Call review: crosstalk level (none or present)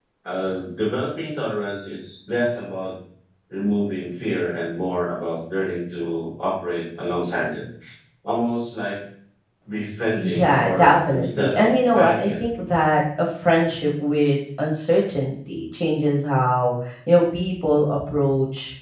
present